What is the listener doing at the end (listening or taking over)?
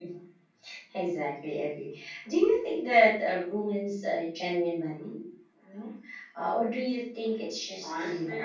taking over